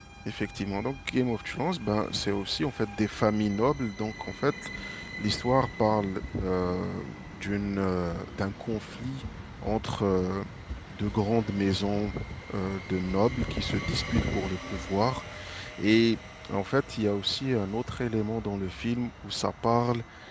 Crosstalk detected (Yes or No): No